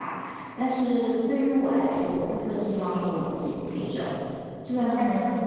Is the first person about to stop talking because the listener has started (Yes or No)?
No